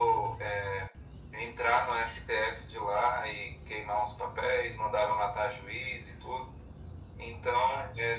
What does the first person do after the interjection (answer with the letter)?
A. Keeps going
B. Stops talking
A